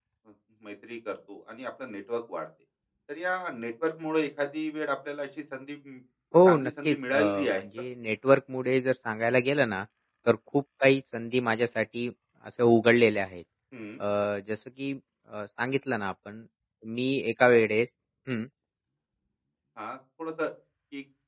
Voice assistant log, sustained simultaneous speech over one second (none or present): present